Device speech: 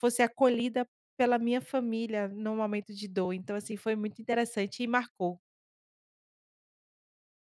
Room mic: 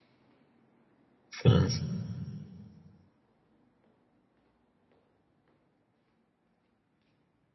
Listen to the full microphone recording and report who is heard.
user only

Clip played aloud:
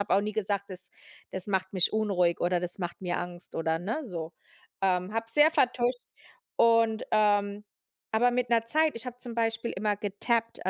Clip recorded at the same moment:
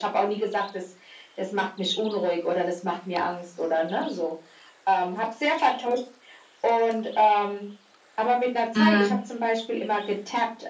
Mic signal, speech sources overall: both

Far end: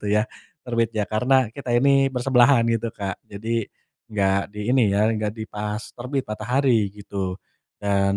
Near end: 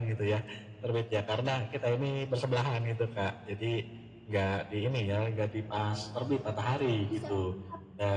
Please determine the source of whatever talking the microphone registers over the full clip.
both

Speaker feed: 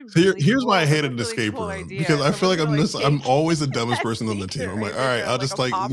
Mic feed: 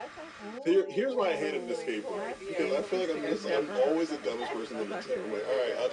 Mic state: both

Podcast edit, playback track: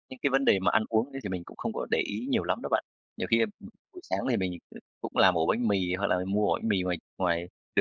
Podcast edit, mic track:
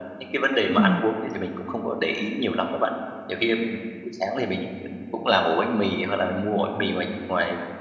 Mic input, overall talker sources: both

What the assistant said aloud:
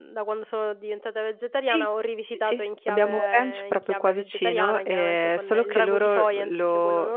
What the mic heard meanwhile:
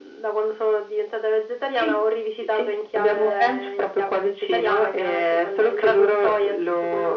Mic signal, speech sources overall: echo only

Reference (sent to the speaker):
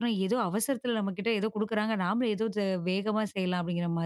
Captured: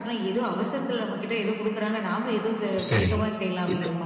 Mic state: both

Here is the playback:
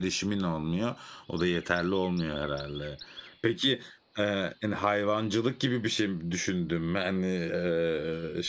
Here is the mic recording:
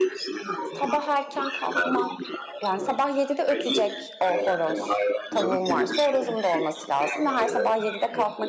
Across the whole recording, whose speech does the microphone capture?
both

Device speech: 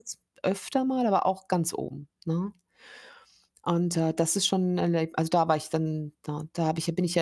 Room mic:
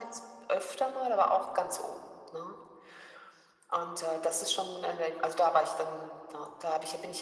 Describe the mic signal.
echo only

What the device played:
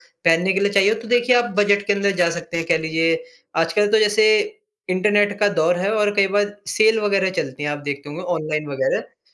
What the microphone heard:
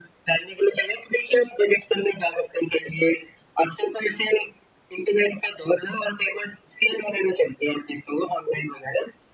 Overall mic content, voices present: echo only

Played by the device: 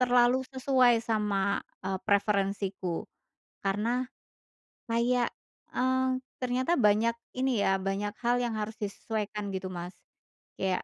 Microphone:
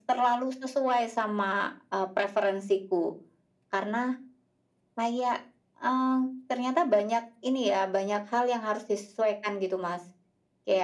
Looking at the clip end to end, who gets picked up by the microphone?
echo only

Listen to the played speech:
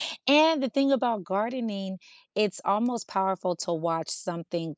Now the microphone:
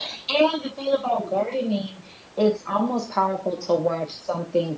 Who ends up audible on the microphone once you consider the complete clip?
echo only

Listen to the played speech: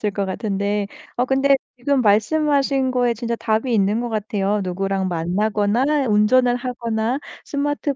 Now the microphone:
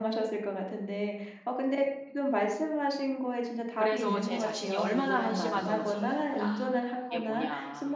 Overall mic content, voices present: both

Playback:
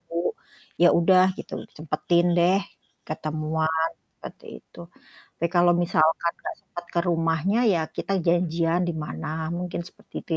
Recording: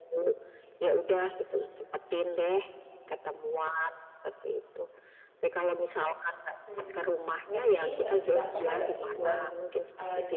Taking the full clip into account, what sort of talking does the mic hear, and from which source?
both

